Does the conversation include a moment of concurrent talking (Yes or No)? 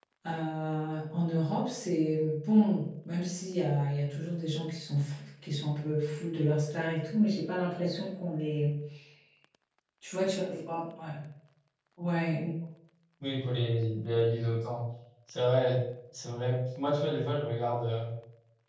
No